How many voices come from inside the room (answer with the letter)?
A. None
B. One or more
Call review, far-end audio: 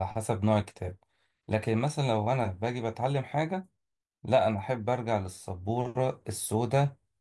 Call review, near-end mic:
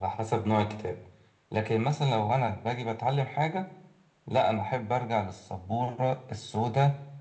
A